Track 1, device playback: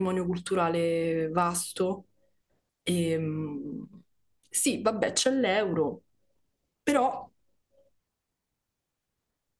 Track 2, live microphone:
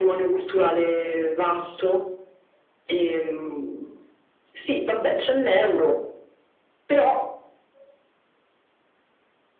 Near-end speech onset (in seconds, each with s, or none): none